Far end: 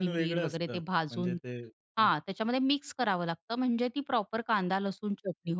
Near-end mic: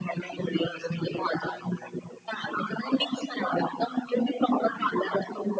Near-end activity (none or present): none